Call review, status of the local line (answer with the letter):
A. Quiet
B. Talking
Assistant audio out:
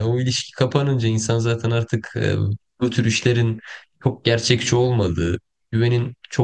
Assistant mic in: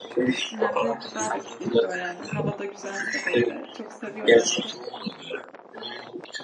B